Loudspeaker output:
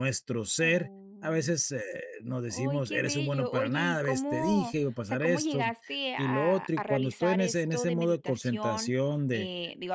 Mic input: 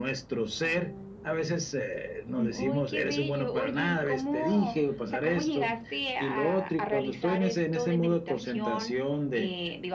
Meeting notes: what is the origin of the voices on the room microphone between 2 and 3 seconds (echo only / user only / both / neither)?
both